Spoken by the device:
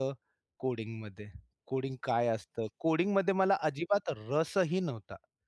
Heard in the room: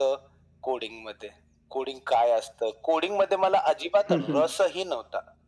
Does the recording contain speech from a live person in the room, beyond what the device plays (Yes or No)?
Yes